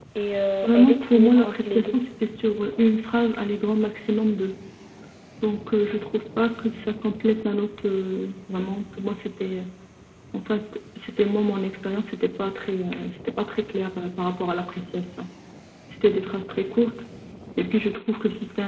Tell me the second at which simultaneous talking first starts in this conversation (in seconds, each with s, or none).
0.6 s